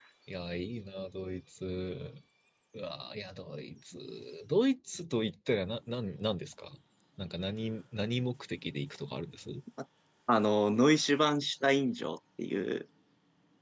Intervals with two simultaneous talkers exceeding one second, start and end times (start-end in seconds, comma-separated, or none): none